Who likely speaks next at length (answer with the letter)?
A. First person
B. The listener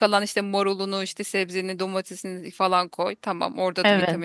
A